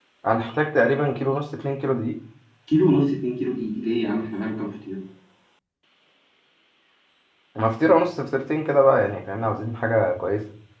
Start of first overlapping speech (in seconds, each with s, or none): none